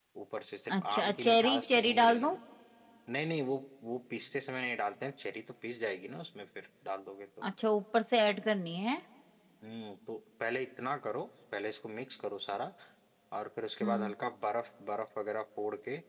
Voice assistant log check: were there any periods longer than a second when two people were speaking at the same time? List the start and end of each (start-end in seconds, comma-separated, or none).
0.8-2.4